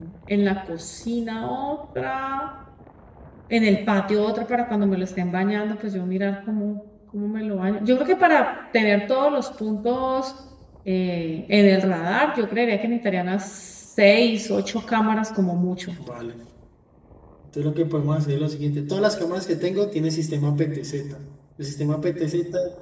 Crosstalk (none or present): none